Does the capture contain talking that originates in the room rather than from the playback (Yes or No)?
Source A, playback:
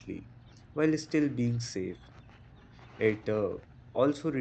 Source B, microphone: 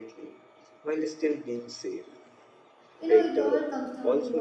Yes